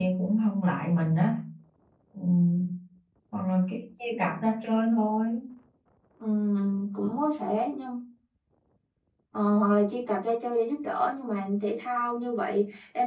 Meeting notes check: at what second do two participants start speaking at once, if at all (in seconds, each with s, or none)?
none